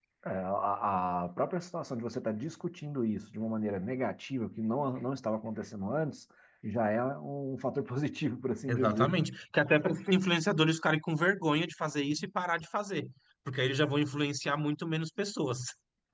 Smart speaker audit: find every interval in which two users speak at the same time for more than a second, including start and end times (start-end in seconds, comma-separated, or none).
none